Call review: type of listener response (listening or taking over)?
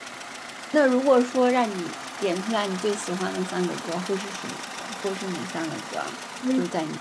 taking over